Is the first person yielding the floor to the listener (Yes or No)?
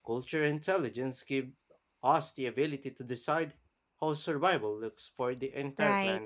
Yes